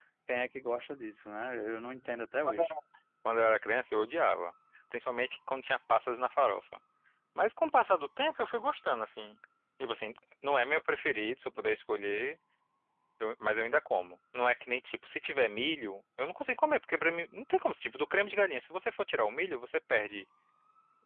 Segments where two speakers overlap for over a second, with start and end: none

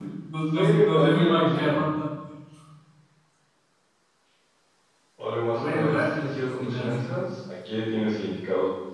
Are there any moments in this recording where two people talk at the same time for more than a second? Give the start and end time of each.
0.5-1.8, 5.5-7.1

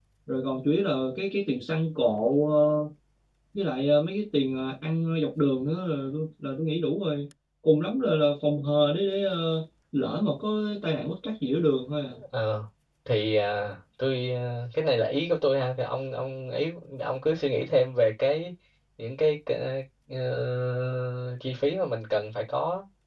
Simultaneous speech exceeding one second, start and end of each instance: none

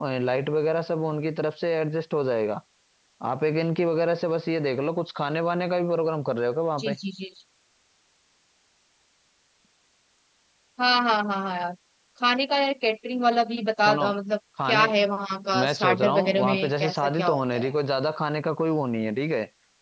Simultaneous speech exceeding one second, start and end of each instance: 15.6-17.7

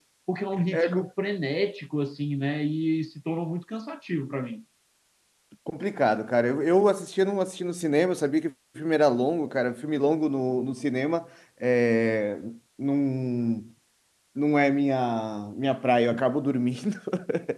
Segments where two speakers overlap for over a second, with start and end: none

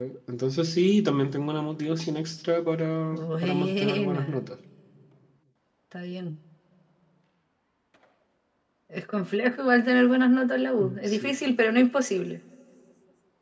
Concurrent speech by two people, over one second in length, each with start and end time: 3.1-4.4

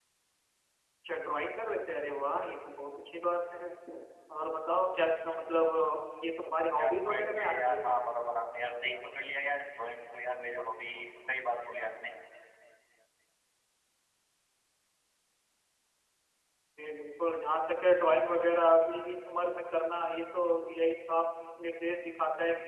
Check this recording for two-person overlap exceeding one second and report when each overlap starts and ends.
6.8-8.0

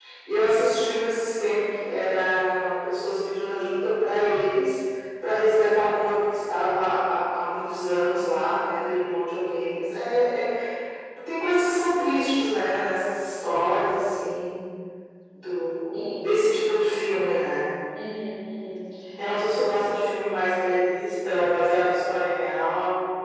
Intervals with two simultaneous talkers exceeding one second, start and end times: none

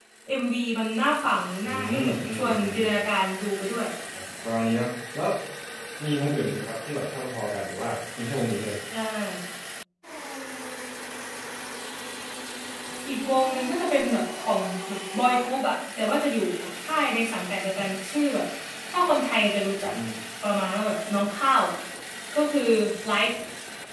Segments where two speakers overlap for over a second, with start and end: 1.6-2.9

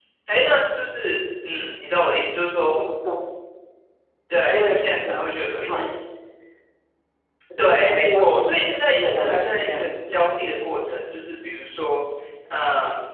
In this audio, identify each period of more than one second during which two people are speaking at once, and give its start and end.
4.5-5.9, 7.8-10.2

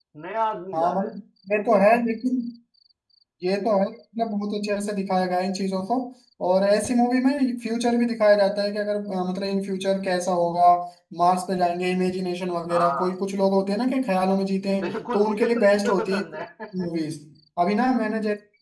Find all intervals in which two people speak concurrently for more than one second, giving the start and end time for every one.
14.8-16.2

